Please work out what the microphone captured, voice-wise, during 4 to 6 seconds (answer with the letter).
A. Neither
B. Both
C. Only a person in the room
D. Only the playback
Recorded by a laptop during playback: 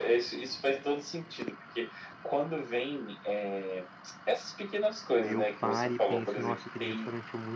B